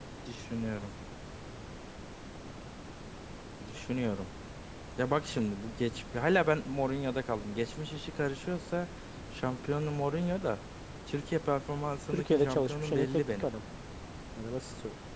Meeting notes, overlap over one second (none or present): present